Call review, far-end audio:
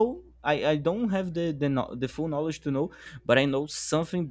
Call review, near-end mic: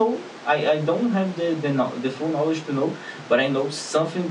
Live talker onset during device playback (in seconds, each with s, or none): none